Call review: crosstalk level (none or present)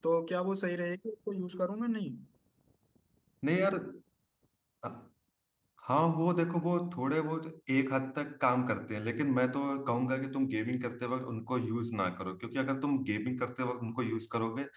none